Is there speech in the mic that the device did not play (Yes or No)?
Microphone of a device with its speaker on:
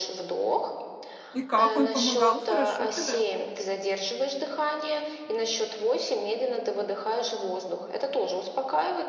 Yes